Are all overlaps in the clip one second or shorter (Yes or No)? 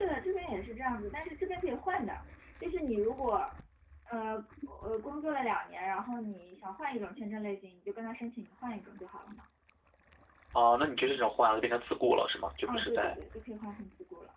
Yes